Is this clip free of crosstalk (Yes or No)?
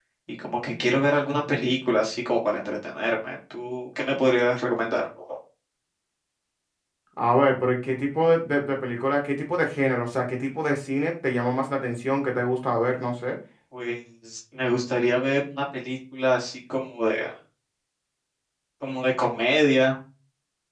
Yes